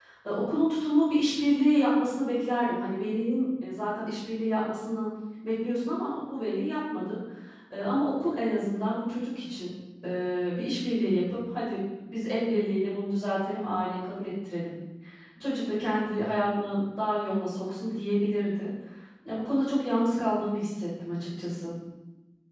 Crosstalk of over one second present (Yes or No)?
No